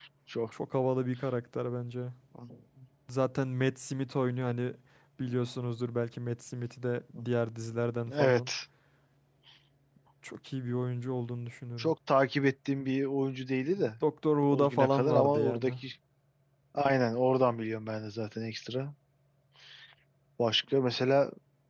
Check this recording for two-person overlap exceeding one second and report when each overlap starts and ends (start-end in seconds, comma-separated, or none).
14.5-15.7